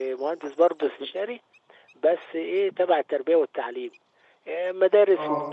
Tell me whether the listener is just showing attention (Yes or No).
Yes